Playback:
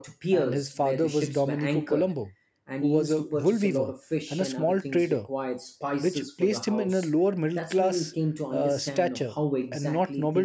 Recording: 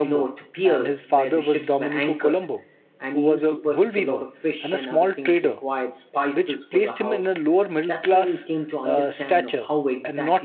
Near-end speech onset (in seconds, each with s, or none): none